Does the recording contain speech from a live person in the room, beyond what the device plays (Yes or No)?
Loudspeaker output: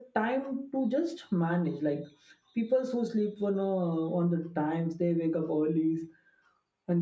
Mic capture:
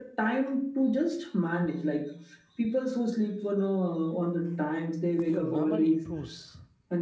Yes